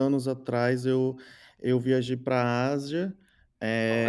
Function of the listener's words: listening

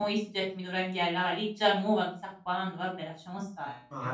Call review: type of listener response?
taking over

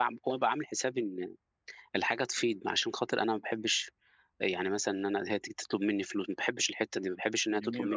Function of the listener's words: taking over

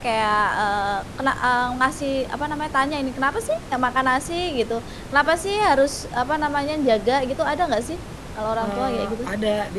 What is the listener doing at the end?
taking over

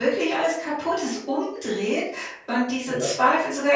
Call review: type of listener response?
listening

